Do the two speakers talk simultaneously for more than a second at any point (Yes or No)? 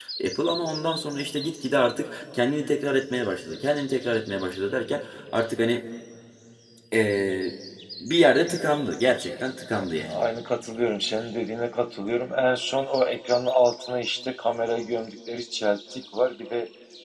No